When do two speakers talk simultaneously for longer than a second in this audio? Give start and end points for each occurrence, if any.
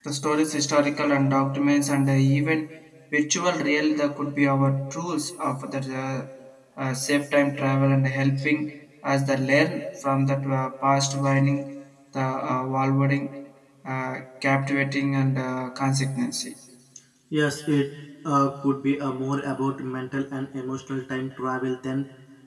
none

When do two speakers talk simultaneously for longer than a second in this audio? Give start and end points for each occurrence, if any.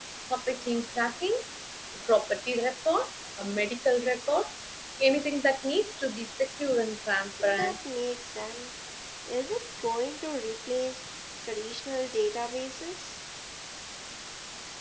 none

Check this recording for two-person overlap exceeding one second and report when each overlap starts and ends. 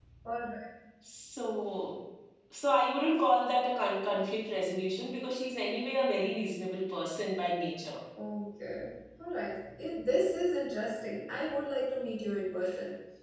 none

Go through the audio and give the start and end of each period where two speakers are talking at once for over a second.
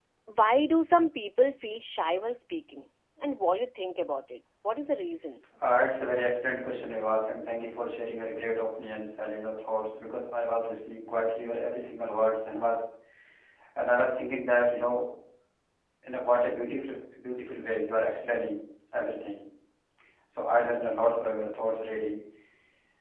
none

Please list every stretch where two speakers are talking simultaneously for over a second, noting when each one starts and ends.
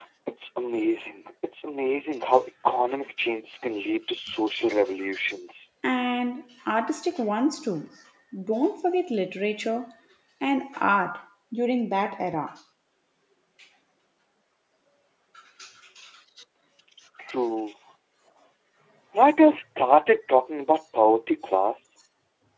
none

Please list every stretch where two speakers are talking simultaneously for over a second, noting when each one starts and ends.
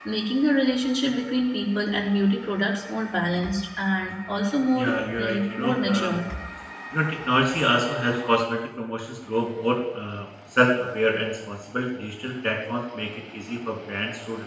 4.7-6.2

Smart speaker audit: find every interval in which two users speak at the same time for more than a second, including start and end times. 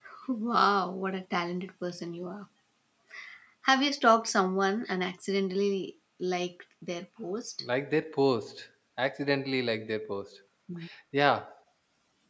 none

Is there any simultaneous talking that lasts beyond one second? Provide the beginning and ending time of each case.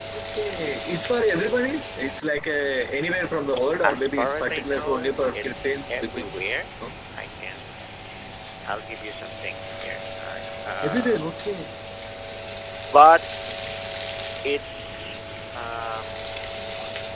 3.9-6.2

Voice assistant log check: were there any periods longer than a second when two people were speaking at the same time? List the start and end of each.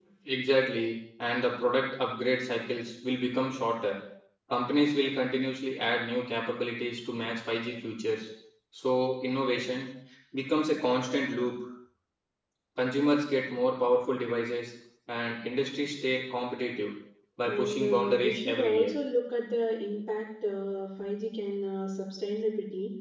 17.4-18.9

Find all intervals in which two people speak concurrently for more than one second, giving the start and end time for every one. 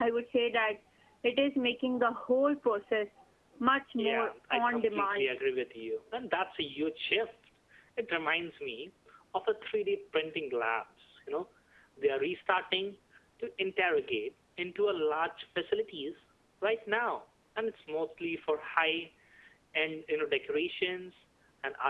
4.0-5.3

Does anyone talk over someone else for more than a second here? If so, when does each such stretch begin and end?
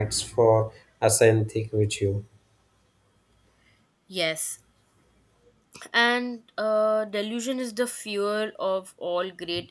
none

